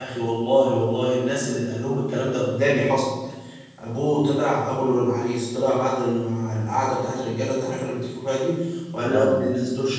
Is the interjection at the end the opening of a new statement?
No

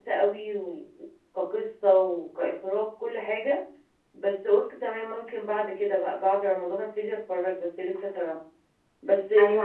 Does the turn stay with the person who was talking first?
No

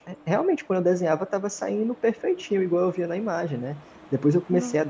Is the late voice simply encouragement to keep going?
Yes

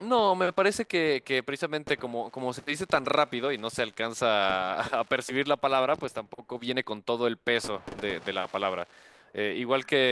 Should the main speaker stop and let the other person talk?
No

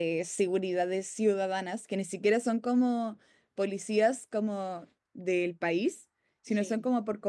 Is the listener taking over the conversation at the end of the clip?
No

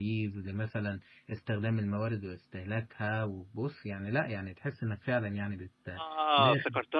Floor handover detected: Yes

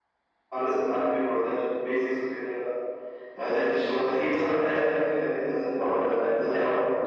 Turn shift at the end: Yes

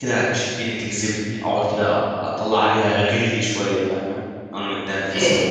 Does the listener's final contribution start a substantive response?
Yes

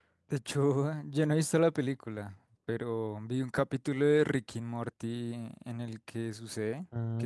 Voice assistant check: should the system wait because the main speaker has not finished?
Yes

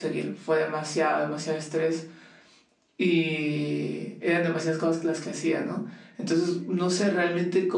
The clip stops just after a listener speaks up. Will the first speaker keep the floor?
Yes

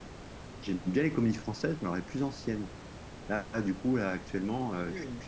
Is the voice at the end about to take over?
No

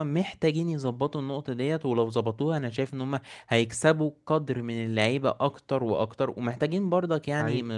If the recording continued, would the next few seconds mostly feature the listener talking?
No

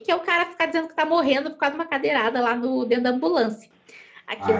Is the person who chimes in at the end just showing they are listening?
No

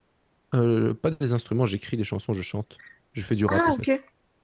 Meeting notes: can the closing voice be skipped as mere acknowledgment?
No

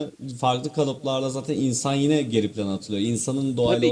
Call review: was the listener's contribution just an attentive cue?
No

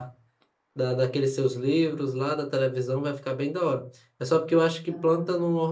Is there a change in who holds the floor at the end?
No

